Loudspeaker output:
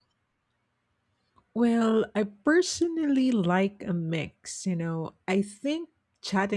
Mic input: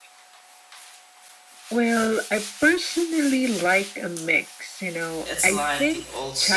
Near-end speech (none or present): present